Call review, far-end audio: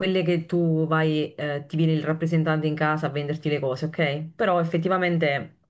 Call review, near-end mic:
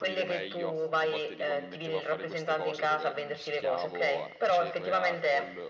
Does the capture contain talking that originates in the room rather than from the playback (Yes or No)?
Yes